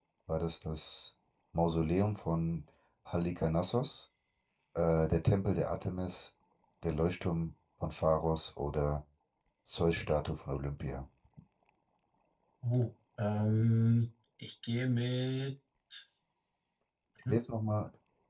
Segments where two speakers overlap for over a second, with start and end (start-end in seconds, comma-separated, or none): none